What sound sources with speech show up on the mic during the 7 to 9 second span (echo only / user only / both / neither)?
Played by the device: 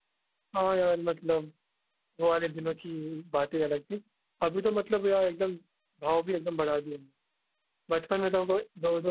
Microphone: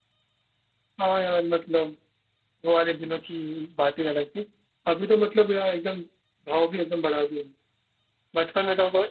echo only